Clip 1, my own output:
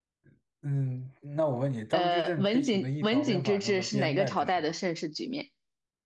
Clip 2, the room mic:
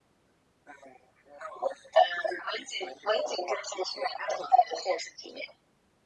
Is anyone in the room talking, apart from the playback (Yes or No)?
No